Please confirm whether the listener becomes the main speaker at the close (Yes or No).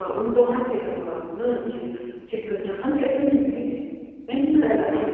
No